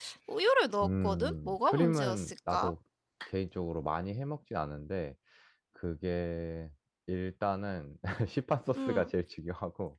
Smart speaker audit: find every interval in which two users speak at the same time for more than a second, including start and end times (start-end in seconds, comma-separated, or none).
0.8-2.7